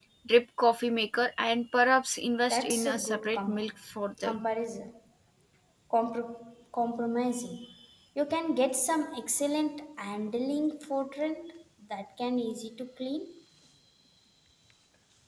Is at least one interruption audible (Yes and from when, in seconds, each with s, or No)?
Yes, from 2.5 s